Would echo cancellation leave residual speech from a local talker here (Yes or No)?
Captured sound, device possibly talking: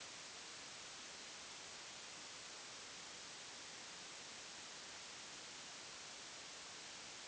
No